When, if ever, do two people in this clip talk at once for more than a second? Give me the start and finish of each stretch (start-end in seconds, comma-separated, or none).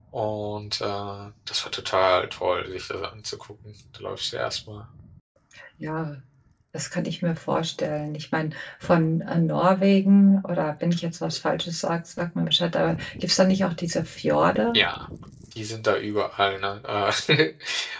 none